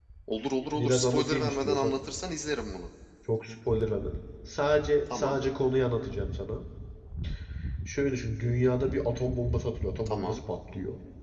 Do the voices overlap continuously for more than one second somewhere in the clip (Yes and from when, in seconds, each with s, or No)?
Yes, from 0.8 s